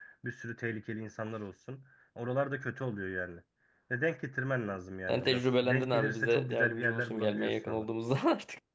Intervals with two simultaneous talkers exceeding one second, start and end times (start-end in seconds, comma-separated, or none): 5.1-7.8